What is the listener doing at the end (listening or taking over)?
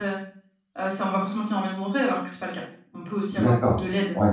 taking over